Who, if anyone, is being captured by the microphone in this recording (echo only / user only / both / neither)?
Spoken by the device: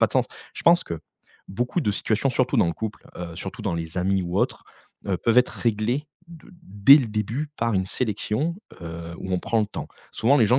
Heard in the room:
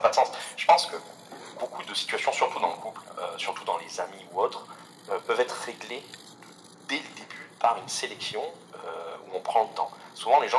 echo only